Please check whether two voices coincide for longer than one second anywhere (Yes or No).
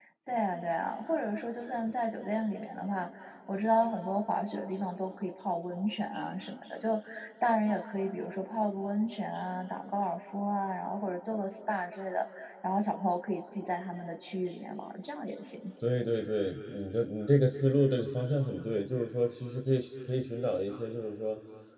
No